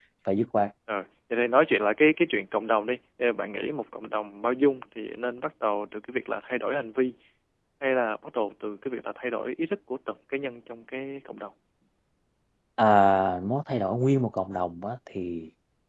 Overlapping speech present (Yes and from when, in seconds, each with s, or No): No